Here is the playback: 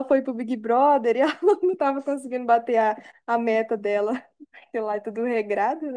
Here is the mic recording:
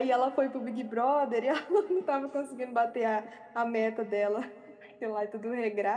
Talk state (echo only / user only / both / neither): echo only